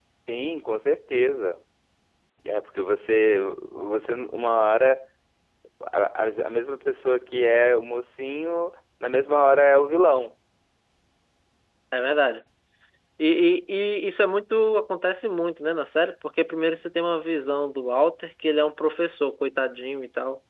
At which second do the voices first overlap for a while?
none

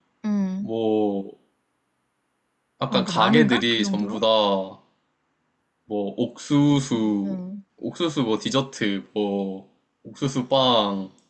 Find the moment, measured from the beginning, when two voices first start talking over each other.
3 s

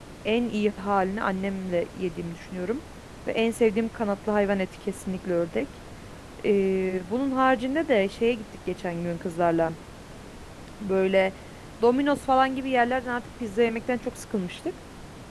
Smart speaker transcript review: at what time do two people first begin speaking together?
none

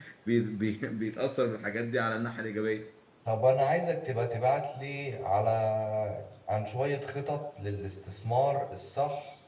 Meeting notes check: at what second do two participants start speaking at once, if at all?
none

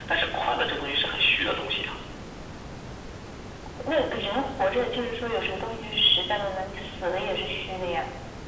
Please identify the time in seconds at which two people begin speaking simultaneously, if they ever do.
none

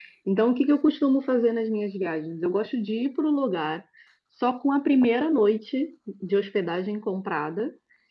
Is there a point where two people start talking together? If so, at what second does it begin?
none

